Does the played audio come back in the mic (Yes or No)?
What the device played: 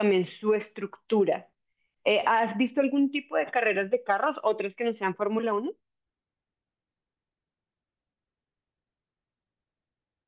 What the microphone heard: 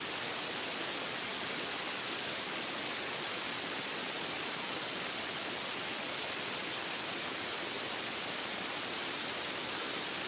No